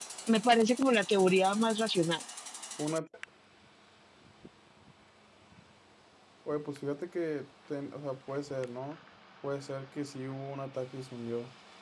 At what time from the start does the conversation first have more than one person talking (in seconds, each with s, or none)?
none